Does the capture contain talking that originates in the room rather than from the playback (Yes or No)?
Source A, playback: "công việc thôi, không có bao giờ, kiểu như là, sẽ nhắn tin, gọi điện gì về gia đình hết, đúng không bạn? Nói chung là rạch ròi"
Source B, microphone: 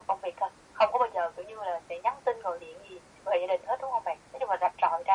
No